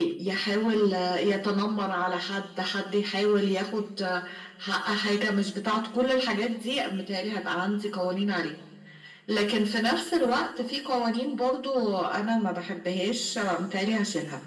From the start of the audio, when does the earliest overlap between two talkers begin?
none

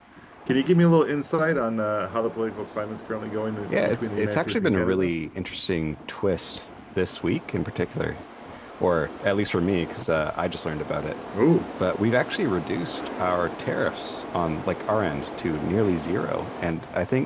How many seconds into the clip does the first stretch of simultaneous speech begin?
4 s

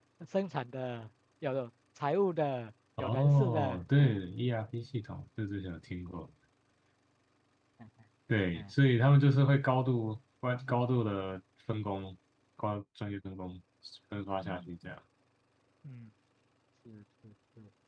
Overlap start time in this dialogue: 3 s

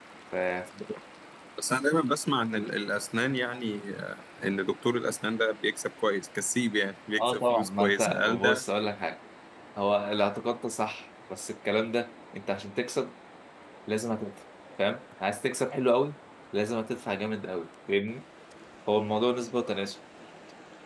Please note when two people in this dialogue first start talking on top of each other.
7 s

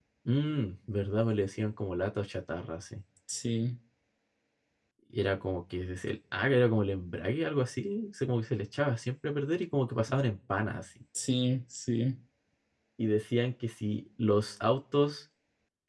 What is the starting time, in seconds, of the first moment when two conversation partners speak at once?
none

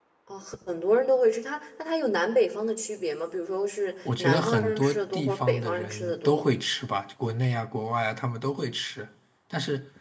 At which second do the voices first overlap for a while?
4 s

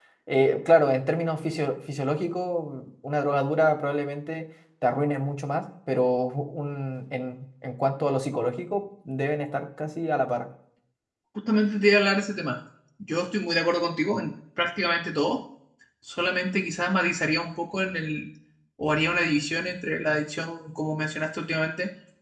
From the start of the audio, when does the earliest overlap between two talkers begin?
none

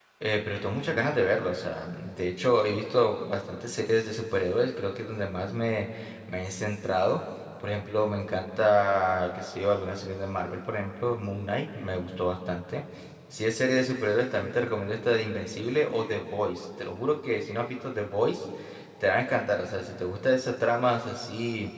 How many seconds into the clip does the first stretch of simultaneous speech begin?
none

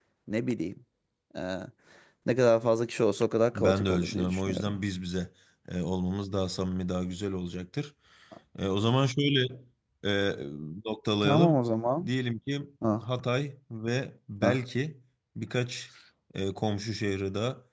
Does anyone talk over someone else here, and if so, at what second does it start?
4 s

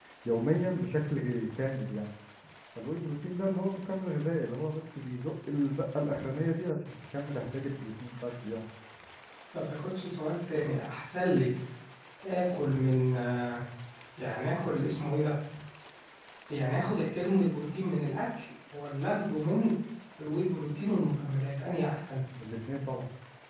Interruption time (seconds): none

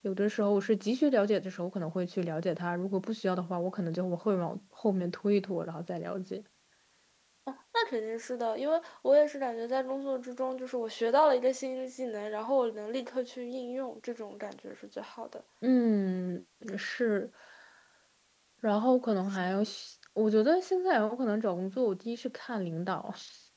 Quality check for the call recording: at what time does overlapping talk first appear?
none

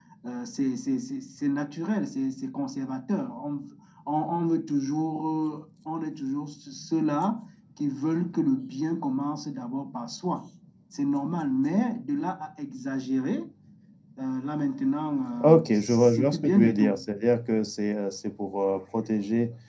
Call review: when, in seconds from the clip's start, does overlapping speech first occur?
15 s

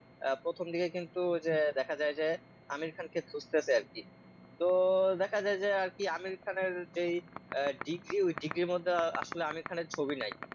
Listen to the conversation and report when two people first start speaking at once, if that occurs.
none

